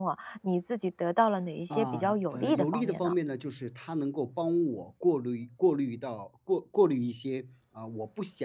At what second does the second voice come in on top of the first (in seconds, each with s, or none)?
1.7 s